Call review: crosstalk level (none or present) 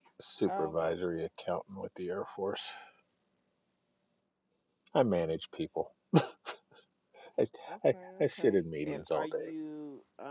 present